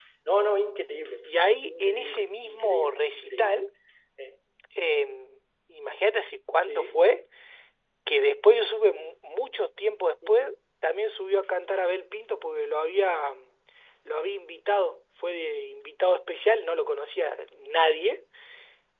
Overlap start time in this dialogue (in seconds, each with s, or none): 1.7 s